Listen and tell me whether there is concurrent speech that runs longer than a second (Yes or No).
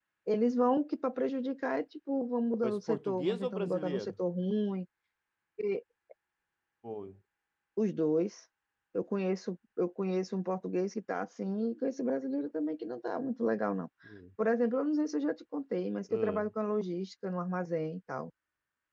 Yes